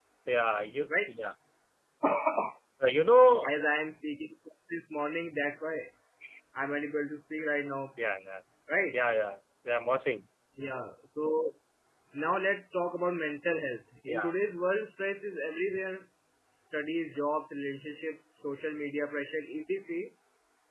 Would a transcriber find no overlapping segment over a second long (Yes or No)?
Yes